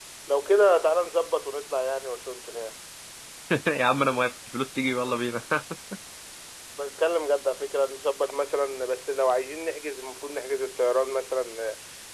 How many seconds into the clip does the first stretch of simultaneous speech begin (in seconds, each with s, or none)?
none